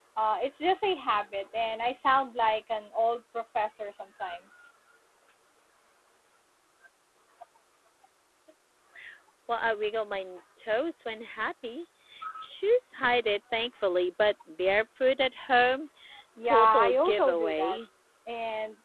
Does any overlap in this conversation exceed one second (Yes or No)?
Yes